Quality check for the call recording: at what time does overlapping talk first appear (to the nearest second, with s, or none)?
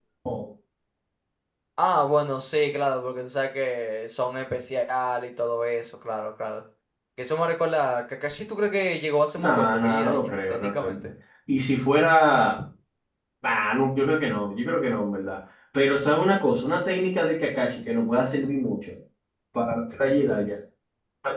9 s